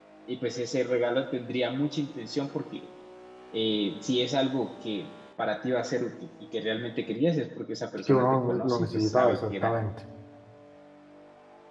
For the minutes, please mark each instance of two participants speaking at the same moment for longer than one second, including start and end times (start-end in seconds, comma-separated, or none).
8.1-9.7